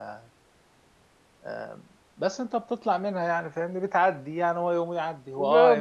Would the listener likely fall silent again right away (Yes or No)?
No